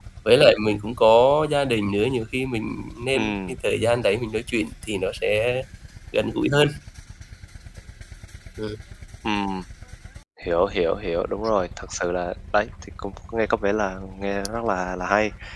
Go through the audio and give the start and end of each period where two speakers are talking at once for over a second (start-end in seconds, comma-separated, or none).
none